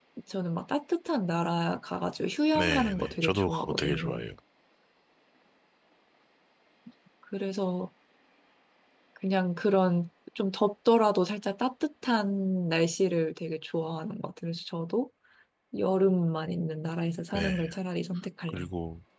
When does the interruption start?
2.5 s

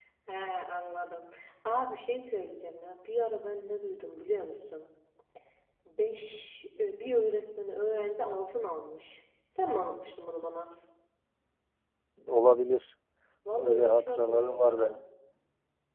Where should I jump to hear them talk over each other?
13.6 s

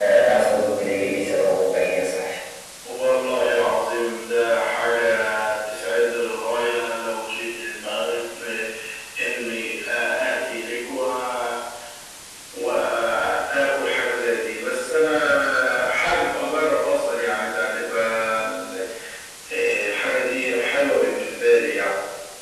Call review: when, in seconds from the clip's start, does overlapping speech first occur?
none

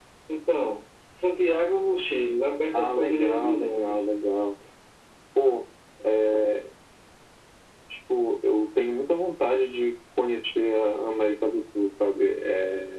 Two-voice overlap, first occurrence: 2.7 s

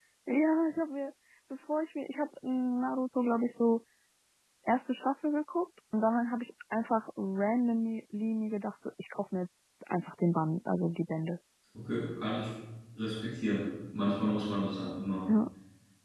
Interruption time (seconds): none

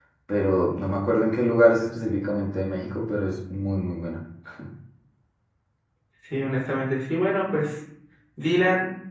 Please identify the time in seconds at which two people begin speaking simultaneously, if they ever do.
none

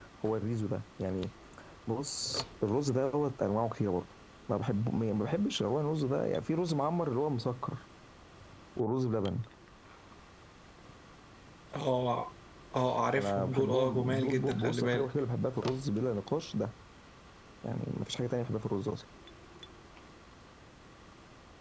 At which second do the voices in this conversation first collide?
13.2 s

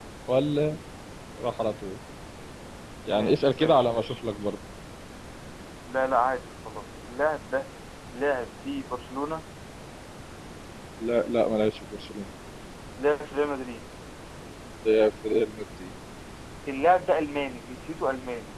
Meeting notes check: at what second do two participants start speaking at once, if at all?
3.2 s

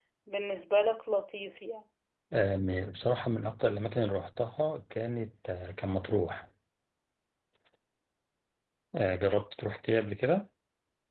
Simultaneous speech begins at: none

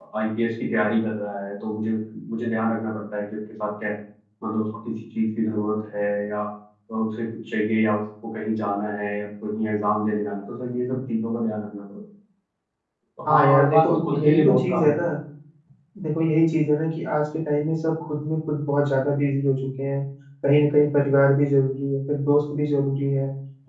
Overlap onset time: 13.2 s

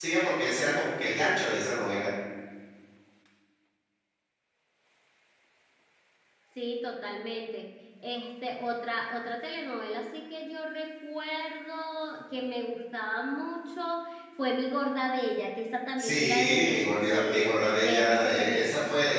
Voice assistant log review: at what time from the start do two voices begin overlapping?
16.0 s

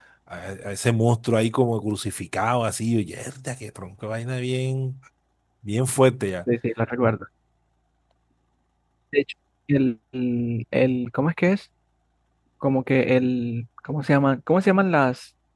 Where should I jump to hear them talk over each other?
none

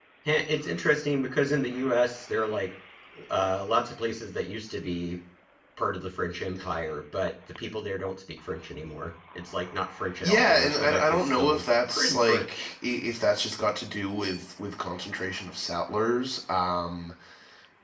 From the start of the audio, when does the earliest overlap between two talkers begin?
10.2 s

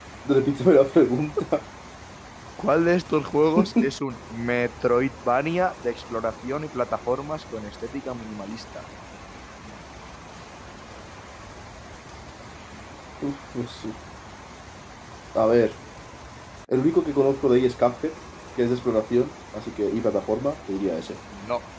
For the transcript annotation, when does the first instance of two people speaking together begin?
none

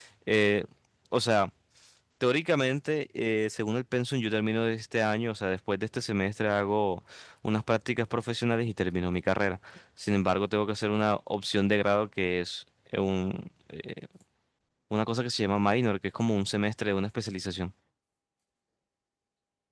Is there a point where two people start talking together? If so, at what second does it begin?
none

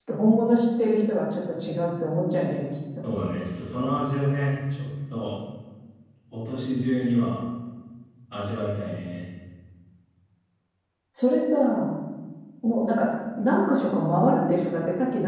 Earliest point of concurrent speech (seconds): none

